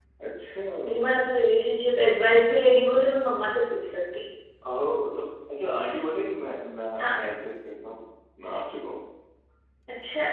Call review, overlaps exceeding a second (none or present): none